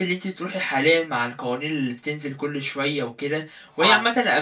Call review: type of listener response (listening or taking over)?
listening